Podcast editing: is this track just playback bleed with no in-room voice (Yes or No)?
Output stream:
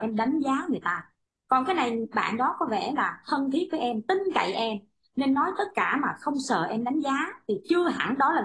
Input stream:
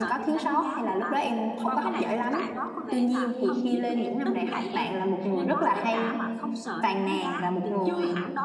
No